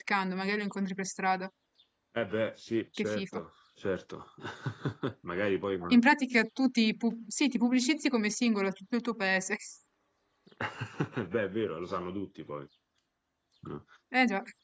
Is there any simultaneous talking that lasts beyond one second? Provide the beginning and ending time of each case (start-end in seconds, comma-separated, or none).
none